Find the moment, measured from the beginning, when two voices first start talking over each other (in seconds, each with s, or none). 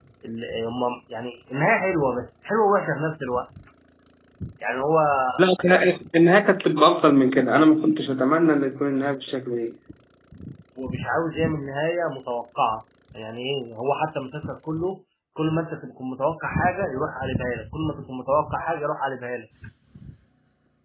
none